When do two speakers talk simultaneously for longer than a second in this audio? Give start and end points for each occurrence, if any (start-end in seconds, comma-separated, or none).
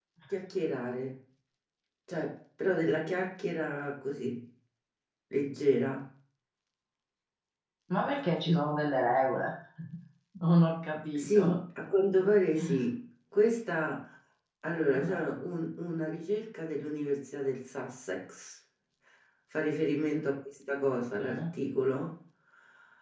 none